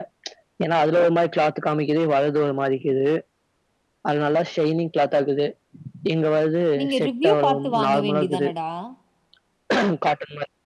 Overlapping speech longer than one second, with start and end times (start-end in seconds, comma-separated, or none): 6.8-8.5